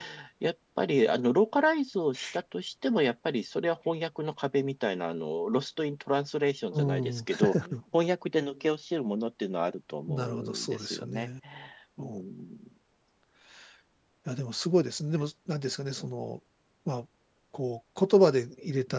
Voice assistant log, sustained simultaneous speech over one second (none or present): present